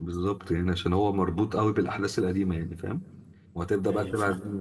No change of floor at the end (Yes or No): Yes